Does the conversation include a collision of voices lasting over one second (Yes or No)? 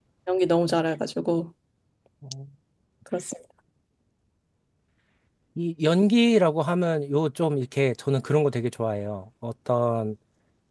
No